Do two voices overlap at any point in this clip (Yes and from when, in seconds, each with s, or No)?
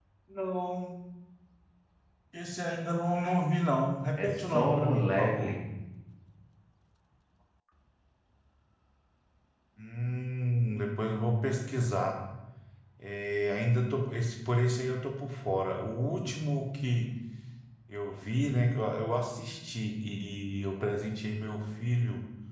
Yes, from 4.2 s